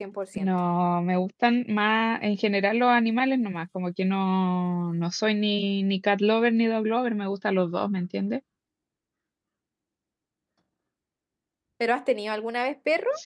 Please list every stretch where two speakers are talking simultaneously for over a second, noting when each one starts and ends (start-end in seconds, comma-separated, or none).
none